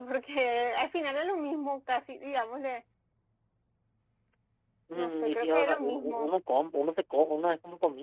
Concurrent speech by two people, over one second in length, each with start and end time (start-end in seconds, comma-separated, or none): 5.0-6.3